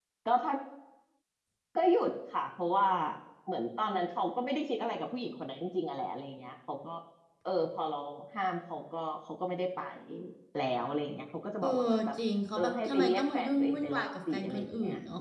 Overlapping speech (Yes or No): Yes